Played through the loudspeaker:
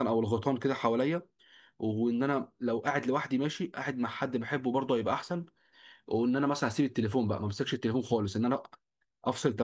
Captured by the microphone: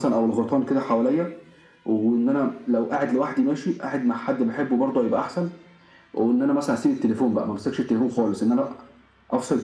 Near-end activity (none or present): none